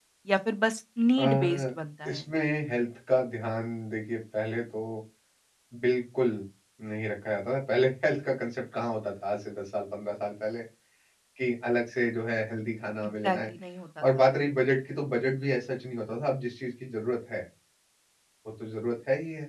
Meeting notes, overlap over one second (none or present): none